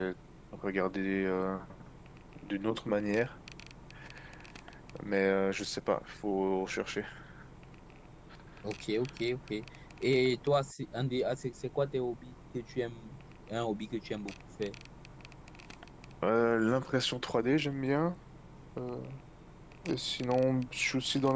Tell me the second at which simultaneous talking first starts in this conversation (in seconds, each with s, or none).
none